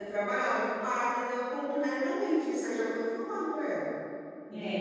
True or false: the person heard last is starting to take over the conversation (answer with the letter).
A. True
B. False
A